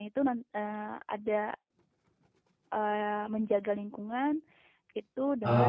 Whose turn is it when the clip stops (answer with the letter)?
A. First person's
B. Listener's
A